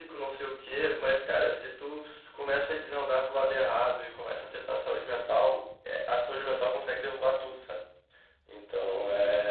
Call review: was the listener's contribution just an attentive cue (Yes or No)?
Yes